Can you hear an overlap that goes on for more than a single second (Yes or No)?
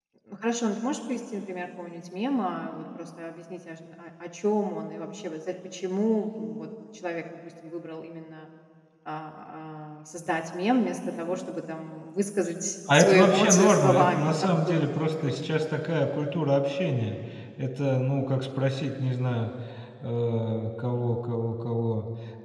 Yes